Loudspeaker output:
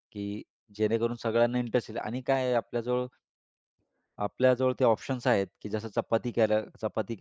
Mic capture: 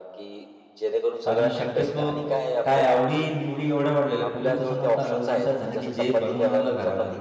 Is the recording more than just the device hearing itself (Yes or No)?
Yes